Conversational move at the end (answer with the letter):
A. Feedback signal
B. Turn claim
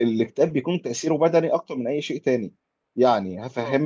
A